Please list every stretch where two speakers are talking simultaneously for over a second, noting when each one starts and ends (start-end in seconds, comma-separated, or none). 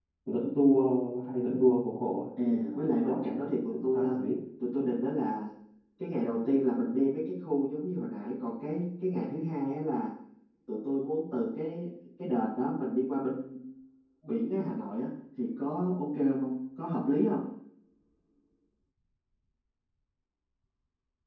2.4-4.2